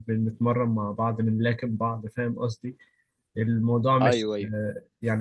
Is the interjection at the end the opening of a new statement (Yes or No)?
No